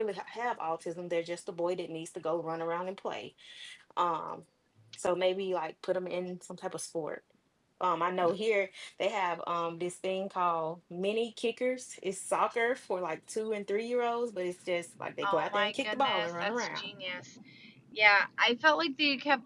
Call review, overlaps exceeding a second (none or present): present